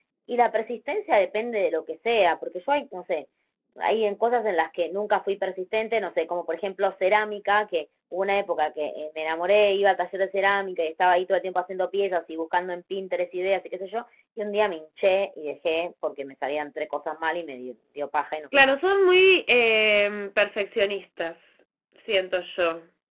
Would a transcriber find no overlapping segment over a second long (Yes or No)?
Yes